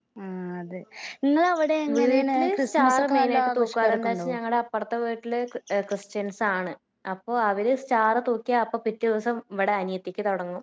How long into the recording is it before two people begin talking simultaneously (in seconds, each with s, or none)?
2.0 s